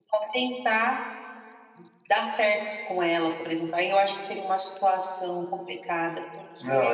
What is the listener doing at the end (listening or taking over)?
taking over